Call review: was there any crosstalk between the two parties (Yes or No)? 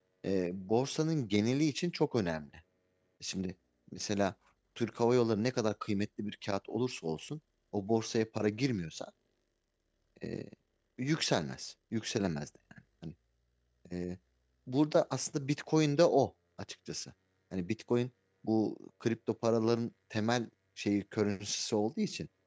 No